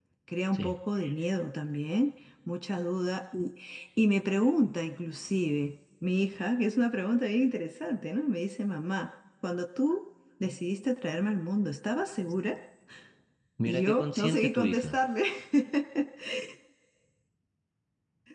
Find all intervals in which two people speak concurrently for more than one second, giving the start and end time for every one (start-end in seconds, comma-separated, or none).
13.7-15.0